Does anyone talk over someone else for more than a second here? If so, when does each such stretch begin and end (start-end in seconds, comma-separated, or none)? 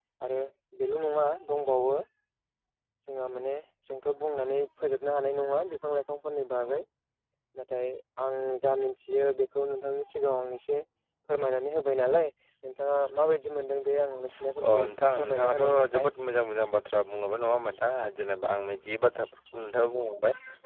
14.7-16.1